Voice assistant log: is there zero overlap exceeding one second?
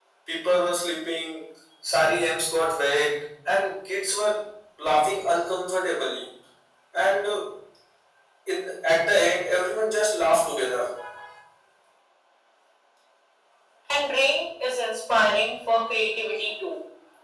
Yes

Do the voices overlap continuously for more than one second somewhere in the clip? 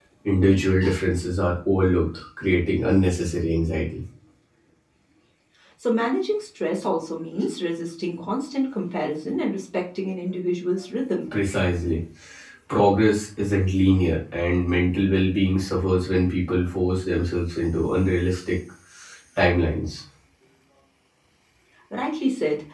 No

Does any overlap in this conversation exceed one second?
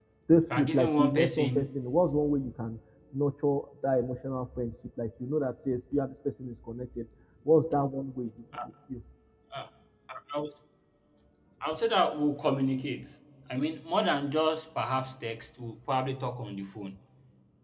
Yes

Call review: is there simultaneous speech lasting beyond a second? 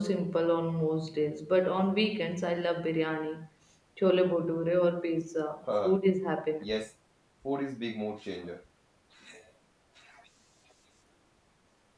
No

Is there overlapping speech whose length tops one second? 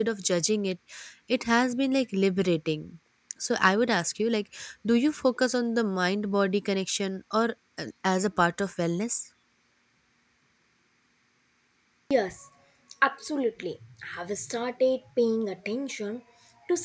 No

